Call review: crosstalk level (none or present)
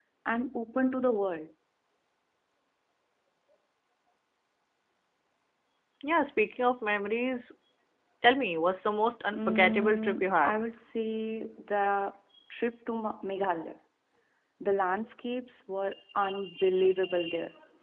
present